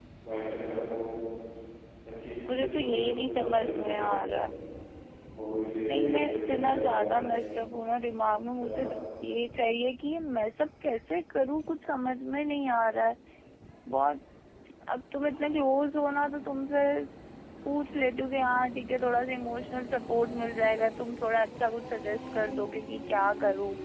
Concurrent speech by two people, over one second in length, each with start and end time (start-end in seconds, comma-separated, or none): 2.5-4.2, 5.9-7.2